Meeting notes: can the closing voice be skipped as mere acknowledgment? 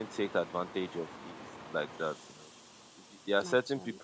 Yes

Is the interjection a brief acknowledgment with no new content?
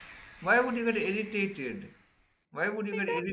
Yes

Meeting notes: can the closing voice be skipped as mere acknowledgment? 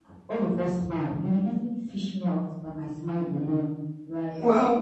Yes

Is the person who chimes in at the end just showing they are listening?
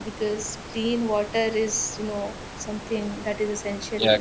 No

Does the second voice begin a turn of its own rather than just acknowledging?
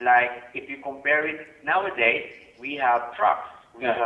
No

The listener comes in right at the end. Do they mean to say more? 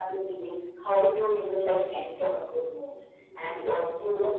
No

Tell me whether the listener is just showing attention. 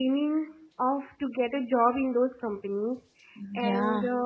Yes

